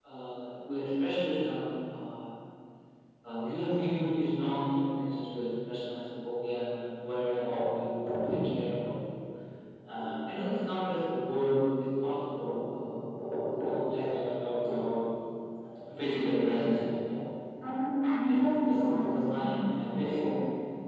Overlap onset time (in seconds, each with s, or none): 18.3 s